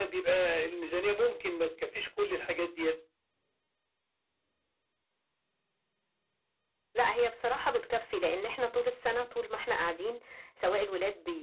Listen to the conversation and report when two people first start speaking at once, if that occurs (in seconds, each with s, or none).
none